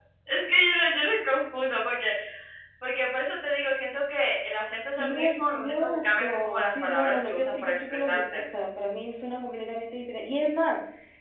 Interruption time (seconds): 5.0 s

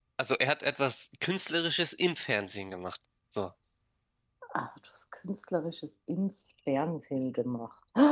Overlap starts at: none

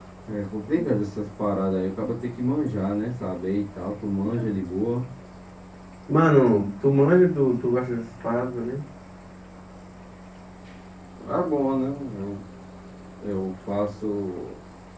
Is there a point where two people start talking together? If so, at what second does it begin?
none

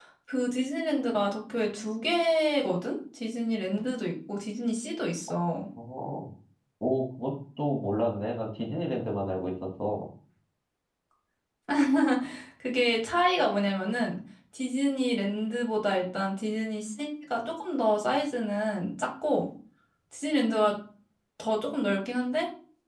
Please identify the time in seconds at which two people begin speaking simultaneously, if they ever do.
none

